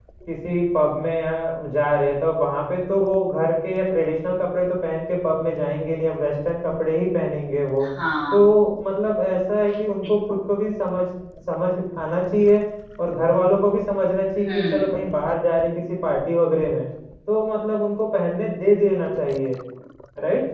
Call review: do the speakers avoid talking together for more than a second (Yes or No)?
Yes